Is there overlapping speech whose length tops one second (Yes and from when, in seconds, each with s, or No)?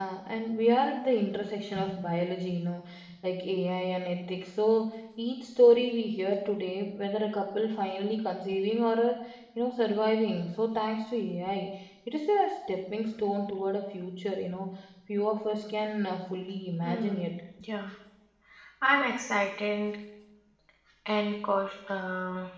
No